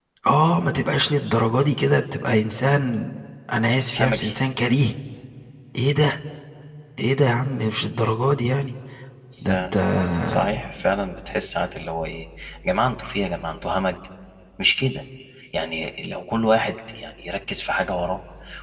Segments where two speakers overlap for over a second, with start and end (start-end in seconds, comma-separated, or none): none